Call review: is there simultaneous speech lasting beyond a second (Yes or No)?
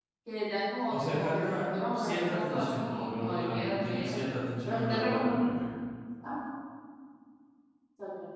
Yes